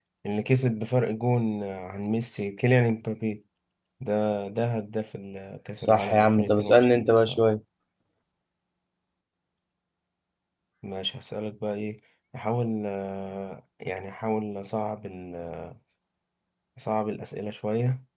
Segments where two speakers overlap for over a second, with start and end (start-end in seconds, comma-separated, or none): 5.8-7.4